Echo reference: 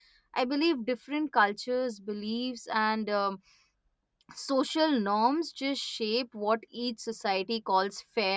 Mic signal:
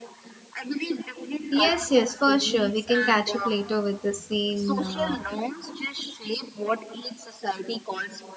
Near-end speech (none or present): present